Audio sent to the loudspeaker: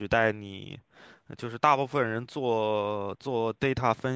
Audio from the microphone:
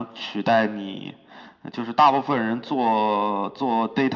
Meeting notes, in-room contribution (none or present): none